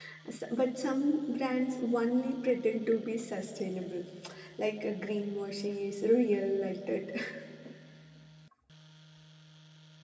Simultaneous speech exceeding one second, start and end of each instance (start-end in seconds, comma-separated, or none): none